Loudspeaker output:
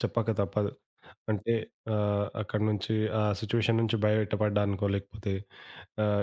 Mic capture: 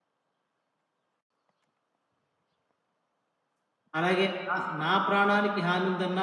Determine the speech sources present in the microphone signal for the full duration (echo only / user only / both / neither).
user only